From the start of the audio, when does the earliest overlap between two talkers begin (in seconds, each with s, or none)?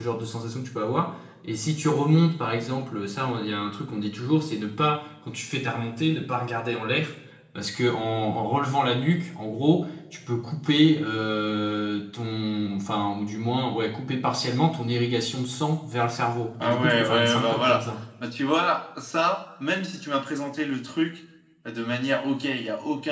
16.6 s